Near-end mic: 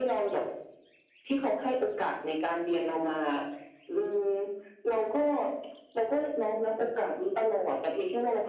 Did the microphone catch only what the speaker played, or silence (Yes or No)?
Yes